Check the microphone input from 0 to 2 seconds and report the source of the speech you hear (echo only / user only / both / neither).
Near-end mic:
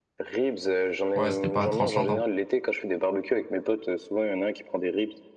both